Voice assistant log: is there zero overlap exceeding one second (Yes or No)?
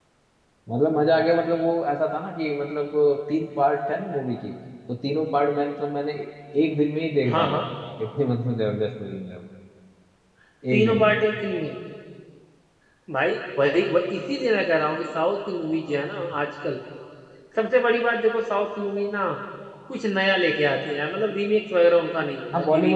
Yes